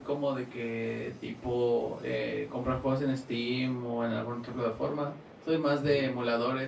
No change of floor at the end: Yes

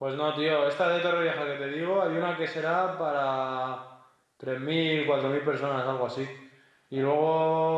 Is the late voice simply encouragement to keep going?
Yes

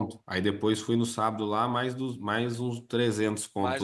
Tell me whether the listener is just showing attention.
No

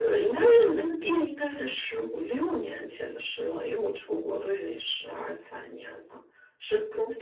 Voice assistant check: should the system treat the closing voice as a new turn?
No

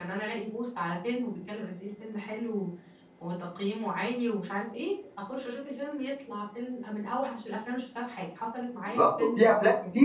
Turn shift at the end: Yes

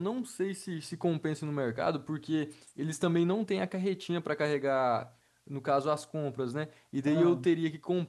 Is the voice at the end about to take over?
No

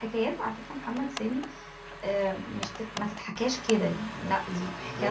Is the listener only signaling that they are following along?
No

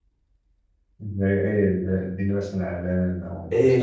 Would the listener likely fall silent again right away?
No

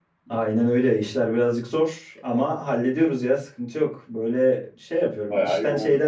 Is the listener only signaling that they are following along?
Yes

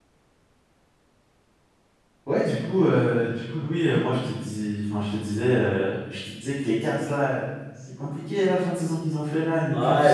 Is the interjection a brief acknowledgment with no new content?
No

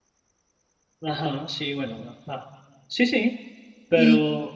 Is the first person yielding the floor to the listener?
Yes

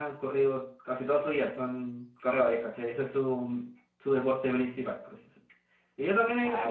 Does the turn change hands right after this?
No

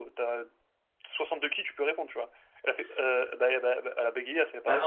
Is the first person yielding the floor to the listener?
Yes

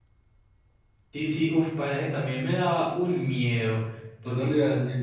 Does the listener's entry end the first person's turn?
Yes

